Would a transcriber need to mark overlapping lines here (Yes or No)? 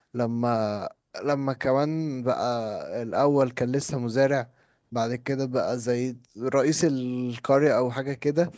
No